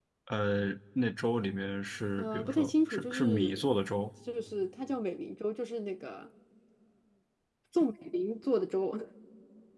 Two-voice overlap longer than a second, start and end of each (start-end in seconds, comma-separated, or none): 2.2-3.6